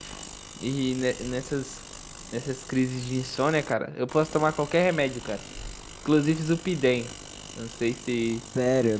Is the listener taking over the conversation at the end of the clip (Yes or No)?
Yes